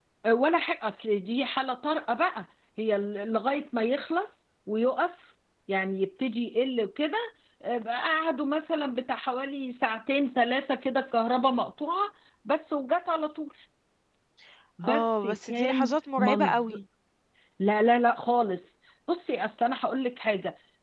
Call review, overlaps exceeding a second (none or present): present